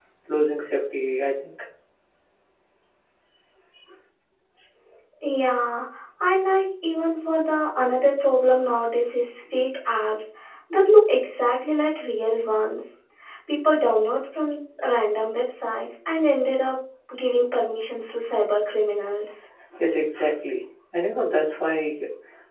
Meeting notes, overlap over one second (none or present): none